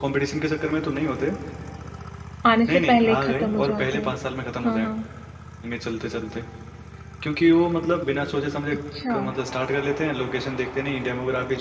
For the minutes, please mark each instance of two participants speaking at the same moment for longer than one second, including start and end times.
2.7-4.1

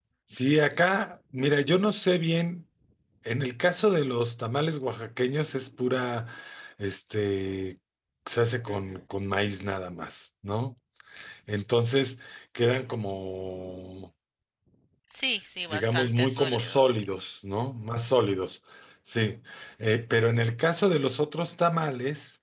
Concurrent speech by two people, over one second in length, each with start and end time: 15.7-17.1

